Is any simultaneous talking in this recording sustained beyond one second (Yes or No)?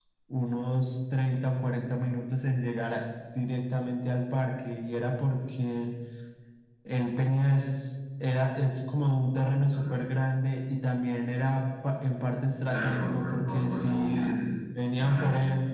Yes